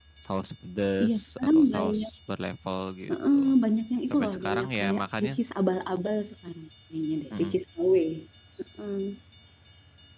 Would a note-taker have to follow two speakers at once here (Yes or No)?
Yes